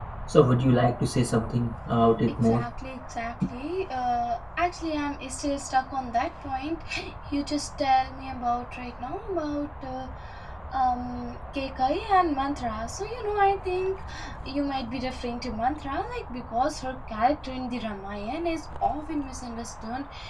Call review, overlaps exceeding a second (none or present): none